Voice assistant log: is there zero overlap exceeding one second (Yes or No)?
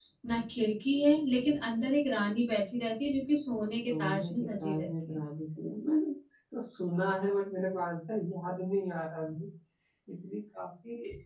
No